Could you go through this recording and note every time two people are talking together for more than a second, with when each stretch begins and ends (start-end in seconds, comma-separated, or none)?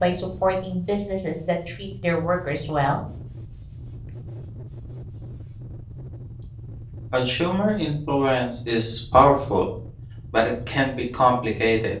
none